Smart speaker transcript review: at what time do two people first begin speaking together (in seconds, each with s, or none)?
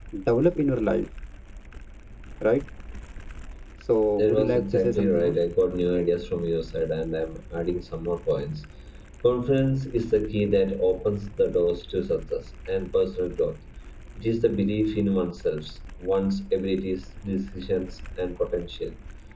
4.2 s